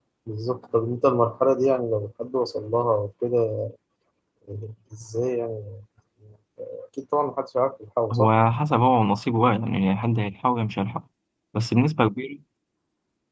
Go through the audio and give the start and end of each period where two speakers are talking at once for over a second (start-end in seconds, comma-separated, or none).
none